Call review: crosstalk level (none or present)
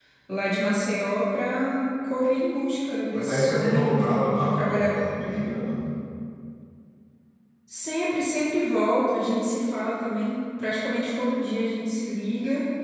present